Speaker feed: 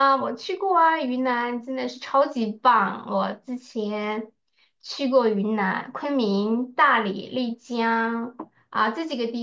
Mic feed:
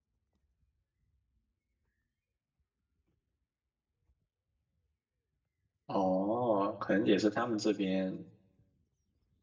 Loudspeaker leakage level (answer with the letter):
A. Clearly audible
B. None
B